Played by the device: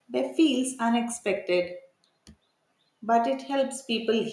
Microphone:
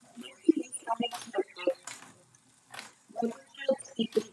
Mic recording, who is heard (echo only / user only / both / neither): echo only